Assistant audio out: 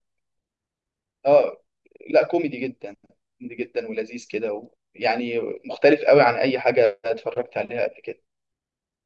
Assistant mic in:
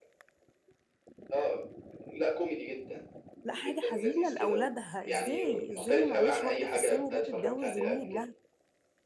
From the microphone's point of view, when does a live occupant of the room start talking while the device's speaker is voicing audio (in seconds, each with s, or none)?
3.4 s